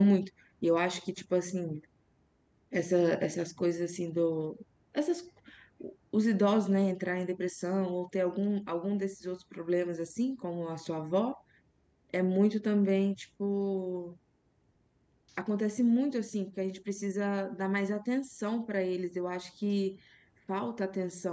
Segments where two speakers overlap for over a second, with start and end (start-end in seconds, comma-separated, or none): none